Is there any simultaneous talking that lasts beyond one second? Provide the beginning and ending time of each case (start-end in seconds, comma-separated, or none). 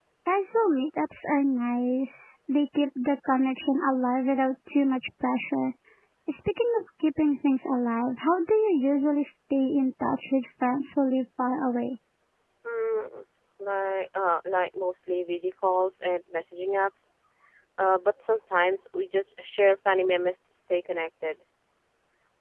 none